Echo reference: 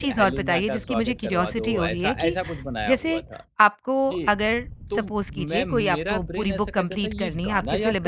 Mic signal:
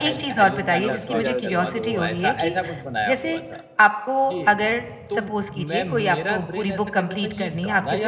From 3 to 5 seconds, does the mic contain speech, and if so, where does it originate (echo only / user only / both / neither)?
echo only